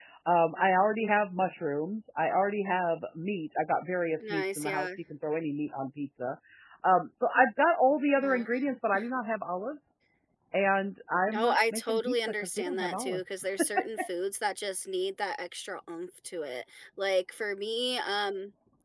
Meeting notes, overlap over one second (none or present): present